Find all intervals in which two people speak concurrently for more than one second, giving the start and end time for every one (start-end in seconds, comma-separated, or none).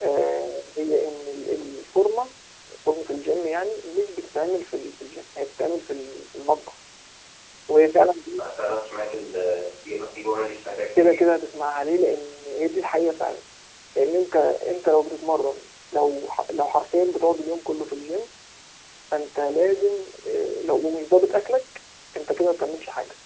none